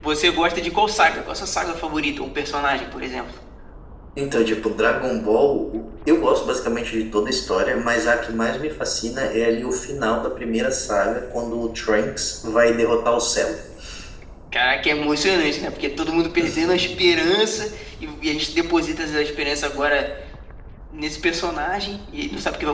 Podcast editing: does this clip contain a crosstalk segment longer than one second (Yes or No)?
No